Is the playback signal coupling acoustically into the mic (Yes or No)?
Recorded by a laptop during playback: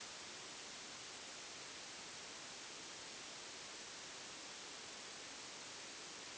No